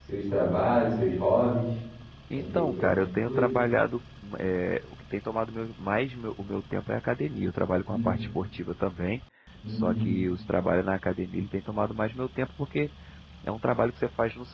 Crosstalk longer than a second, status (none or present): present